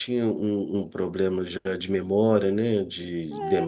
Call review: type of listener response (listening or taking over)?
taking over